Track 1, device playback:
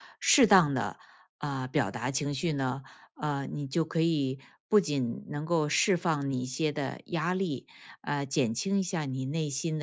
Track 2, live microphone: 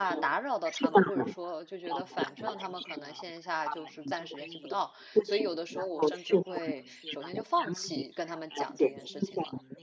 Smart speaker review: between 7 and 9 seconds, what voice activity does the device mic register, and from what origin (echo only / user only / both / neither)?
both